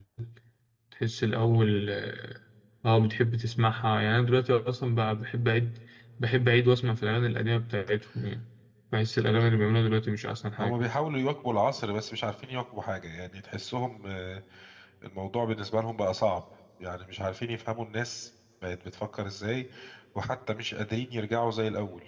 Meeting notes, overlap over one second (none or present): none